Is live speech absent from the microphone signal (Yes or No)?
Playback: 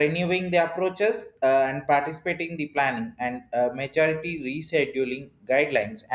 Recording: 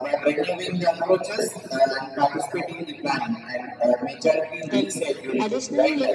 No